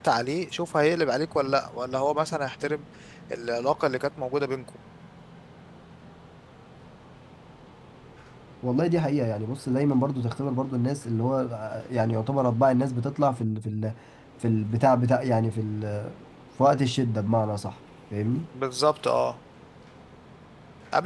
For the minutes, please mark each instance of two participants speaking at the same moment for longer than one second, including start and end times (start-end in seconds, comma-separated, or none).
none